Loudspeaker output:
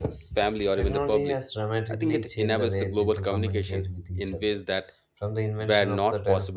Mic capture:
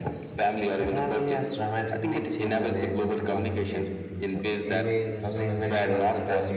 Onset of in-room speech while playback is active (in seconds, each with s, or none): 4.6 s